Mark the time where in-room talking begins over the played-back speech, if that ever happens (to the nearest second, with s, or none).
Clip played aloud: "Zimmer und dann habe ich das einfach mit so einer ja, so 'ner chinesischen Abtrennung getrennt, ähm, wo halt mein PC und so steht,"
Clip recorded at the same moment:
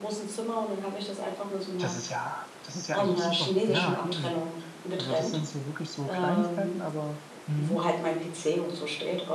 2 s